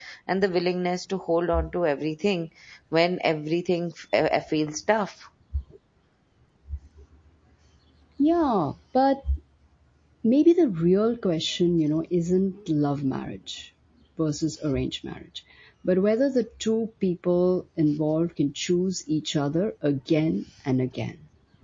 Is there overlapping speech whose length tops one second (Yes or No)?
No